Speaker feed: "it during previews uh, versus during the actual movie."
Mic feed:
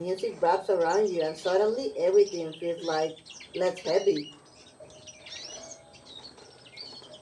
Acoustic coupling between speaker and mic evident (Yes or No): No